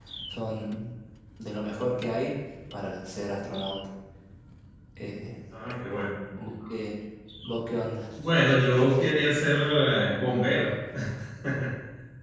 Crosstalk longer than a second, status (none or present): none